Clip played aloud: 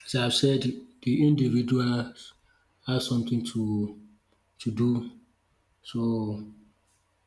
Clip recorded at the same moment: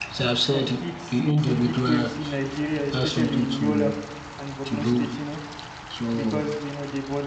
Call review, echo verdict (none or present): present